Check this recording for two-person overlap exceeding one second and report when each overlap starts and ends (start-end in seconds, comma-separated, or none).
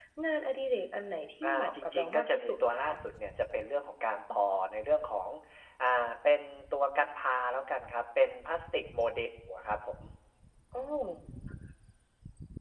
1.4-2.9